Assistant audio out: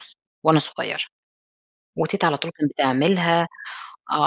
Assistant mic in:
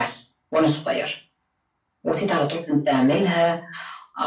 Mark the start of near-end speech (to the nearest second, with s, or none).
none